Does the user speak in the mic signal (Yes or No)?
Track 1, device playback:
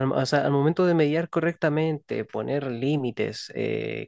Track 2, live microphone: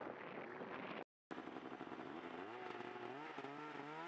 No